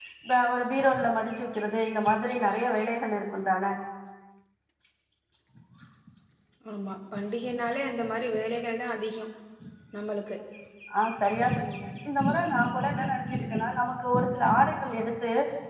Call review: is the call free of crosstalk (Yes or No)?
Yes